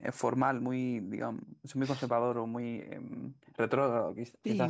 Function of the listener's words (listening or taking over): taking over